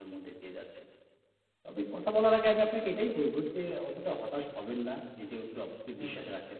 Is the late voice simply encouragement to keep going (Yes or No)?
Yes